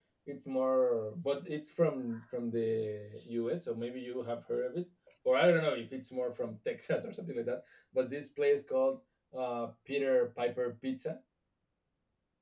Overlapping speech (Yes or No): No